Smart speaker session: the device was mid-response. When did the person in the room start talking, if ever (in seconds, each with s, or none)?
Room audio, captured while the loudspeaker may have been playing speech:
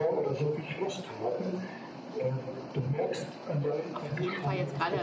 4.0 s